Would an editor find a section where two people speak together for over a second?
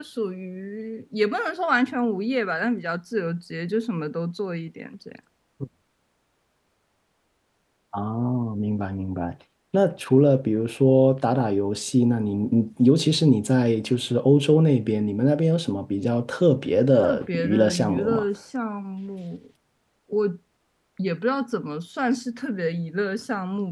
Yes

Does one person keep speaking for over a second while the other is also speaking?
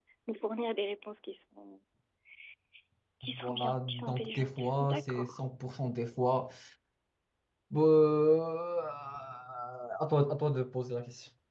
Yes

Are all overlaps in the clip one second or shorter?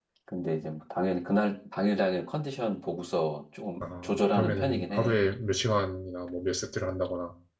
No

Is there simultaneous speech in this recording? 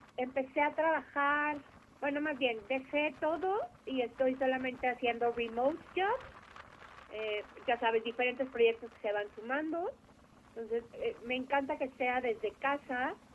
No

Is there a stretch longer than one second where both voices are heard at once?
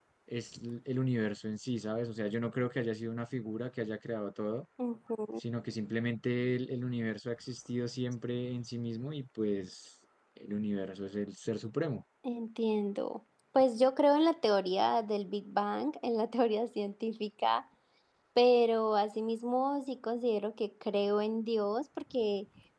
No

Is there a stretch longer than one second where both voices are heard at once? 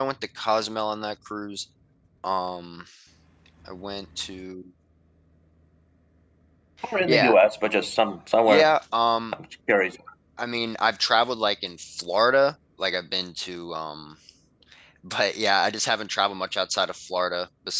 No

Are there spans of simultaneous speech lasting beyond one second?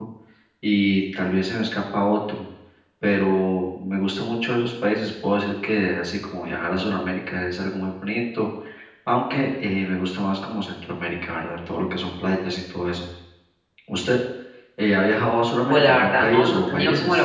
Yes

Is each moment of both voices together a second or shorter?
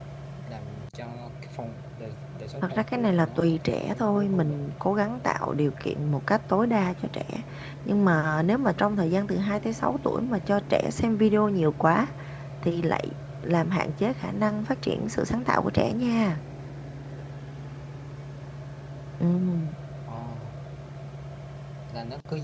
No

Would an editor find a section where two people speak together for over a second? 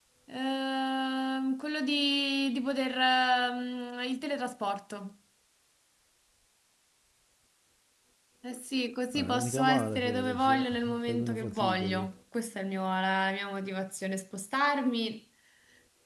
Yes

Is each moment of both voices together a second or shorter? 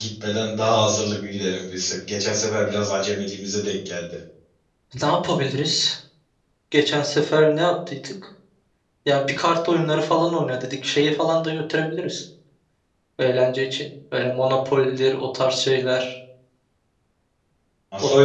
Yes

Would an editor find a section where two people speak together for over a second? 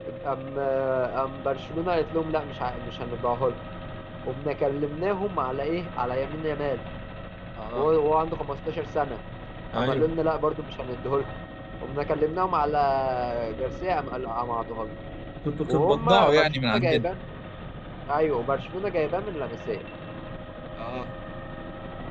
Yes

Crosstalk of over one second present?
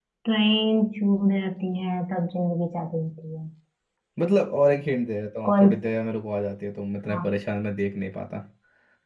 No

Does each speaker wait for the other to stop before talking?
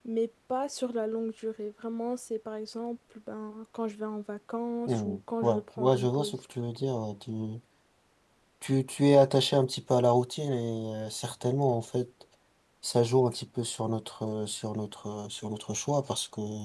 No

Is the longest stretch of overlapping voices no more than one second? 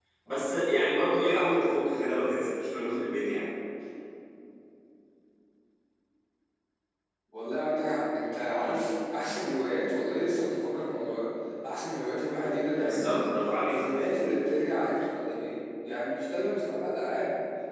Yes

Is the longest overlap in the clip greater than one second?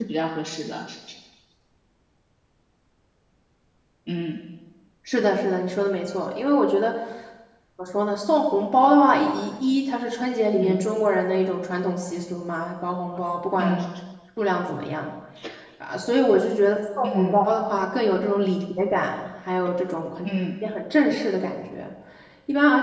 No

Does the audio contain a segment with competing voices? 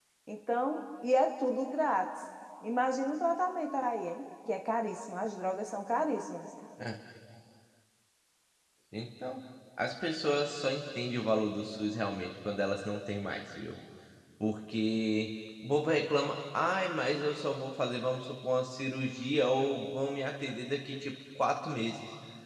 No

